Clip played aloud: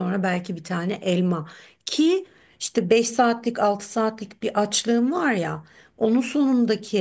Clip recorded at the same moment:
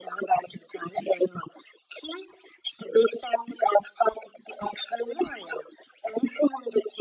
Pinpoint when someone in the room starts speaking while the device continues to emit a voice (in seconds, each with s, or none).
none